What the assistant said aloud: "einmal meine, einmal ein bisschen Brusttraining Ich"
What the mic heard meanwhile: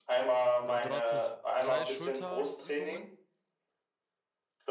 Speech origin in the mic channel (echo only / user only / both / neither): both